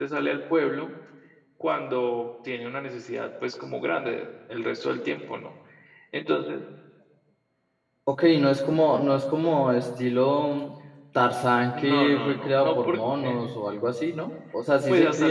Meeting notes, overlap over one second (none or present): present